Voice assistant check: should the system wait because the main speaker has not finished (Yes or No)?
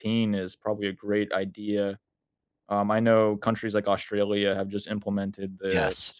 Yes